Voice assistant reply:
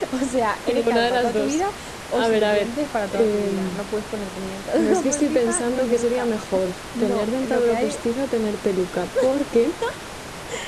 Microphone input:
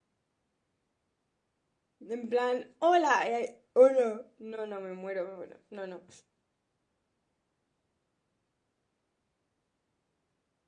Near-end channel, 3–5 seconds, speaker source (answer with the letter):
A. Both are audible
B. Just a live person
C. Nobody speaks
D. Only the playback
B